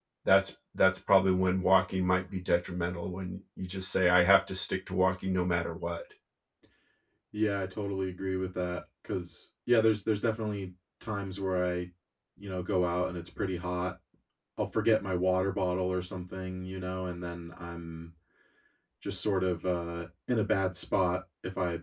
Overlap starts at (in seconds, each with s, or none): none